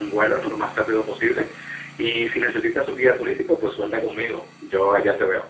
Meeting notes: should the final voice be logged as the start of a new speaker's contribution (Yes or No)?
Yes